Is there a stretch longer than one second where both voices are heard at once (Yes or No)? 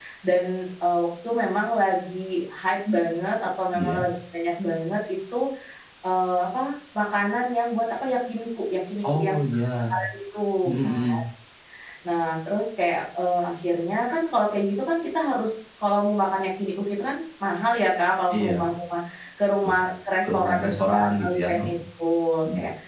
Yes